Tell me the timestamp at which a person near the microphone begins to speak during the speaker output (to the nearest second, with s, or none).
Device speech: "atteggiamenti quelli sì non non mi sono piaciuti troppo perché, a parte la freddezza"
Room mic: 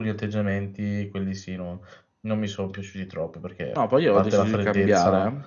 4 s